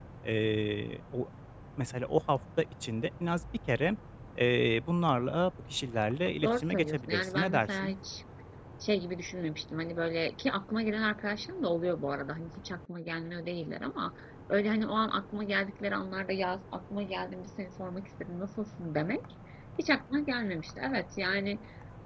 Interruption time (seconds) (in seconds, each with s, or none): 6.4 s